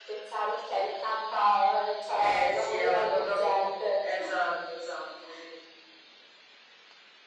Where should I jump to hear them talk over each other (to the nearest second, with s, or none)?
2 s